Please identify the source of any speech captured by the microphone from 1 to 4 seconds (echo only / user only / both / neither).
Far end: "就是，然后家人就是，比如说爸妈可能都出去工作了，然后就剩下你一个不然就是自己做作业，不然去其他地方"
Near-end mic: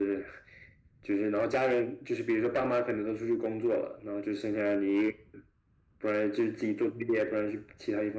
echo only